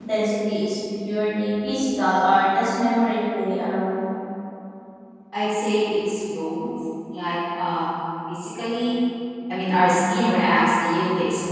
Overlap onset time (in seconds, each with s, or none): none